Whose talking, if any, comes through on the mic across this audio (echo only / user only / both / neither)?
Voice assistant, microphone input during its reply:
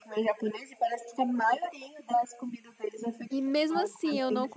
both